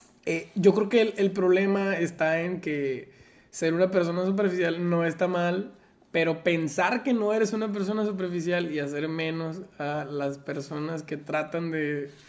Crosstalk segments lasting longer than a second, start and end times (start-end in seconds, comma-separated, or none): none